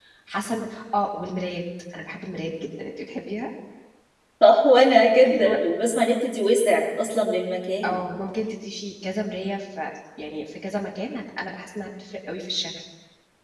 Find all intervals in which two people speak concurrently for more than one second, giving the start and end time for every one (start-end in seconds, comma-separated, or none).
none